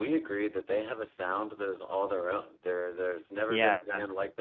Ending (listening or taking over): listening